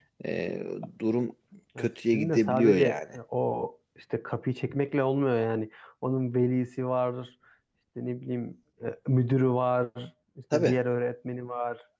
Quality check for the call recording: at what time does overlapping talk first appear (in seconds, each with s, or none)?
1.8 s